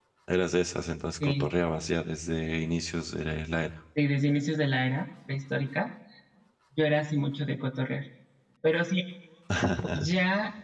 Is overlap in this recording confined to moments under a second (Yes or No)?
Yes